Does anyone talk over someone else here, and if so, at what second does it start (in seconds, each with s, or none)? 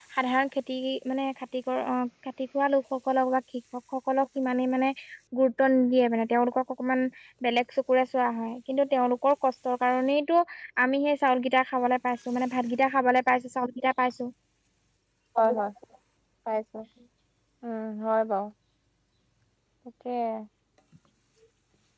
none